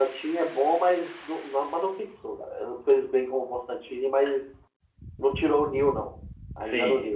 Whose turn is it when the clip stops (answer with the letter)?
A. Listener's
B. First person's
A